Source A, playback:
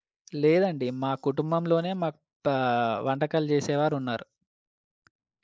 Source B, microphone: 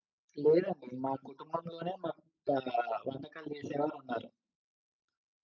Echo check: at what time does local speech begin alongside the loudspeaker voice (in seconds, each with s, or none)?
none